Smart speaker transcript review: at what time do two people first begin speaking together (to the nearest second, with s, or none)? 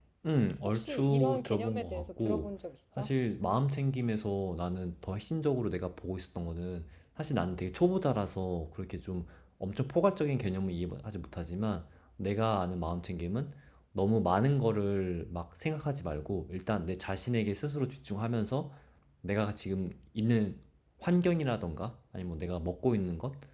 1 s